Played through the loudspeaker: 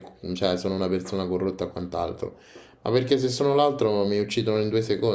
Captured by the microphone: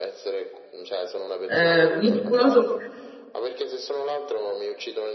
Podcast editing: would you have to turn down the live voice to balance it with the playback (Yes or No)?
Yes